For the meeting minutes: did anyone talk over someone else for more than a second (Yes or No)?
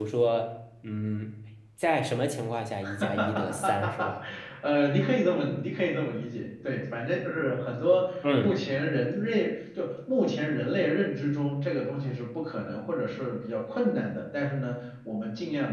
Yes